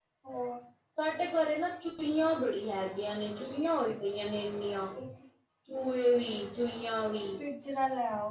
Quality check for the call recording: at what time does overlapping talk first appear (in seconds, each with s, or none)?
none